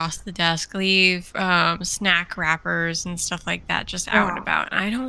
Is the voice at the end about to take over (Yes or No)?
No